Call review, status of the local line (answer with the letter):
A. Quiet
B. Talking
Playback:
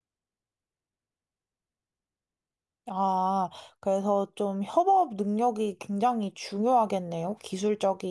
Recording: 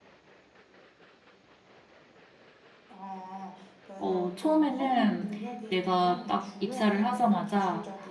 B